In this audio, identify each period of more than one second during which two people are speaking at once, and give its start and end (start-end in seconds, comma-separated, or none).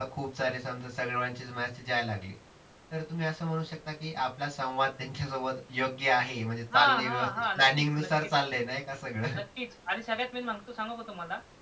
6.7-8.3